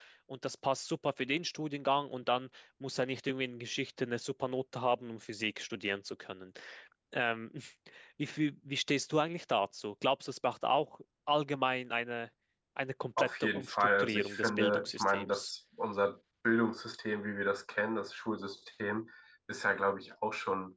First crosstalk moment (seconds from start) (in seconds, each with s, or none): 13.2 s